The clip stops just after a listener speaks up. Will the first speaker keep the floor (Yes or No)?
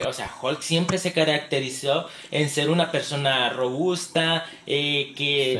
Yes